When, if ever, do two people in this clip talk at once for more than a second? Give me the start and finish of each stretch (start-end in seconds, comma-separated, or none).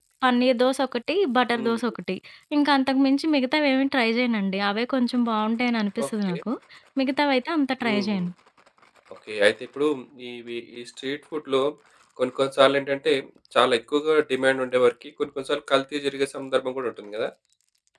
none